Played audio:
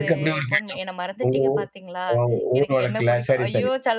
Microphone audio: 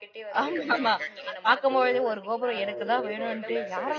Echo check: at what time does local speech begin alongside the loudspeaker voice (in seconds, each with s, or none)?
0.4 s